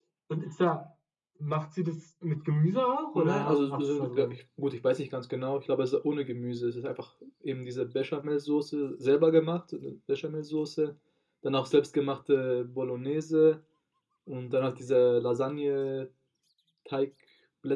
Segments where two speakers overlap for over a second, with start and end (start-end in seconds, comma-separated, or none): 3.1-4.4